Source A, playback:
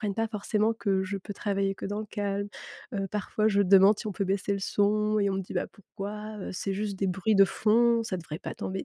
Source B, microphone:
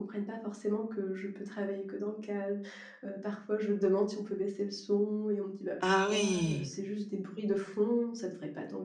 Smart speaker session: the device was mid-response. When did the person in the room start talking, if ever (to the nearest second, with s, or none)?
6 s